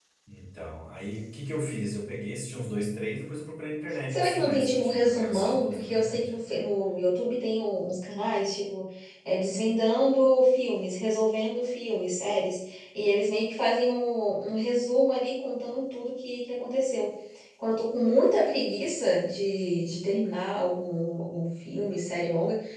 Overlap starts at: 4.1 s

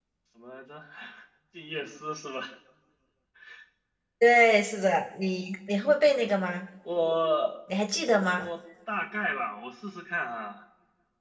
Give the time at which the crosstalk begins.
none

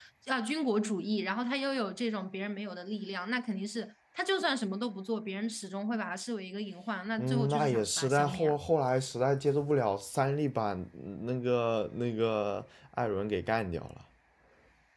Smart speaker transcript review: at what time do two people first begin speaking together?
7.2 s

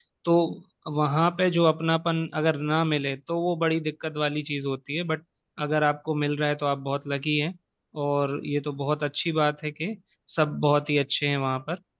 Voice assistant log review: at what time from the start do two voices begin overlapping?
none

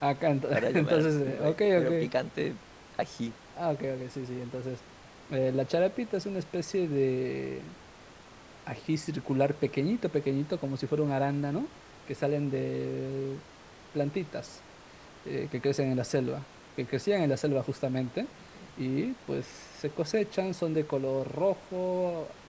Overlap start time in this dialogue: 0.5 s

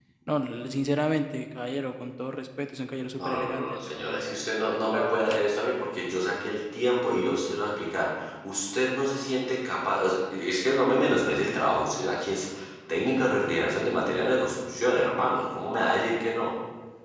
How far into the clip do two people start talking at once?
3.2 s

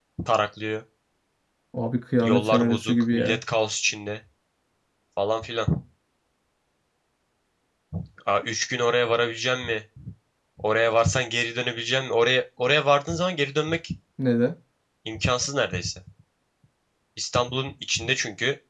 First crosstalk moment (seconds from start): 2.2 s

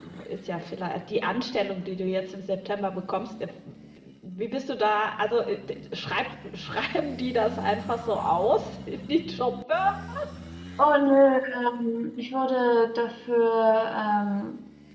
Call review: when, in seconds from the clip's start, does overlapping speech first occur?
none

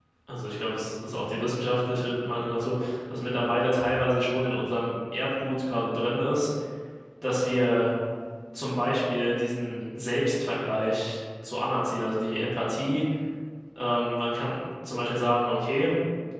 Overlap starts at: none

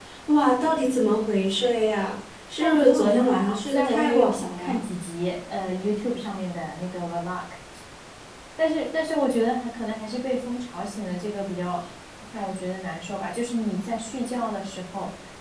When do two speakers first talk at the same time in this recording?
2.6 s

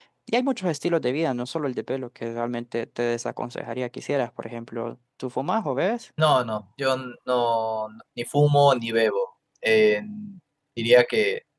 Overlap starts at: none

